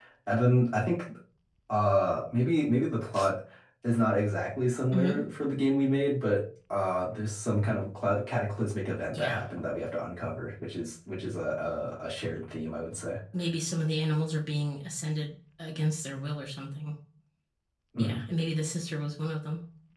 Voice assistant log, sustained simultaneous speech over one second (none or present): none